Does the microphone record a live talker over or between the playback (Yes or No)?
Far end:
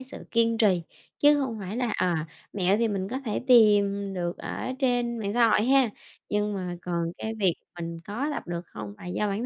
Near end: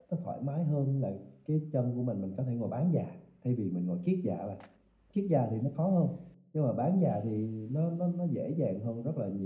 Yes